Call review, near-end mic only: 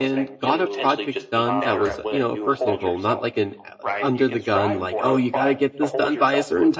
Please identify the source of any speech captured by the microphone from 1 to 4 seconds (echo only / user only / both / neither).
both